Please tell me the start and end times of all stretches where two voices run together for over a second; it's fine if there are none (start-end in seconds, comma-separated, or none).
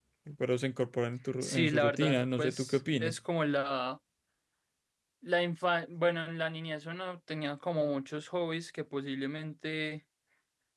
1.4-3.2